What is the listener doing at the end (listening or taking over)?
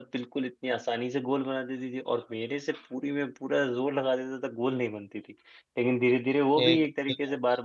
listening